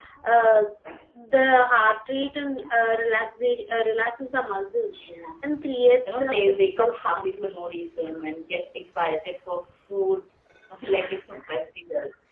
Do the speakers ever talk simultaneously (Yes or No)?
Yes